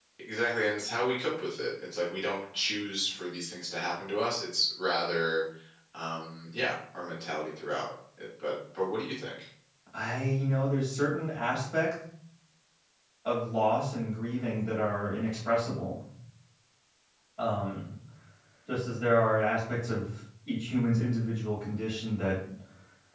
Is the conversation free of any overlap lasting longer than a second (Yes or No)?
Yes